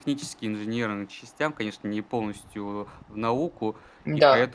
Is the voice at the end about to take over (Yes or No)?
No